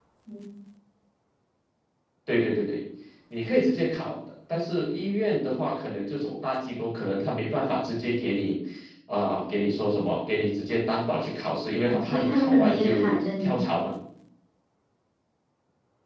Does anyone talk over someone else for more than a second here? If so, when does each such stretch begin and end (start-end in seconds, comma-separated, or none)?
11.8-13.6